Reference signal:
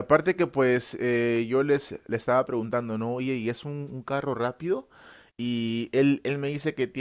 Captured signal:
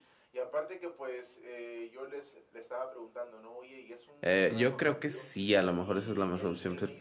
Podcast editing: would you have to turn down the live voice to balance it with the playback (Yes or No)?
Yes